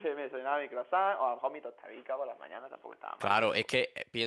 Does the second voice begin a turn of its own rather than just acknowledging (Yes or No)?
Yes